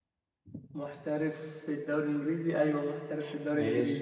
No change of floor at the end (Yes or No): No